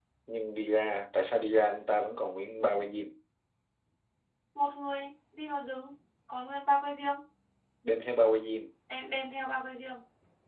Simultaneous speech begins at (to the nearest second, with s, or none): none